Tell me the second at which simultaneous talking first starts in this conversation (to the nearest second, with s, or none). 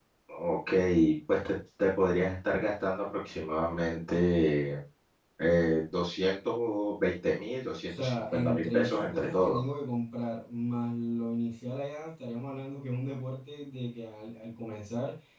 8 s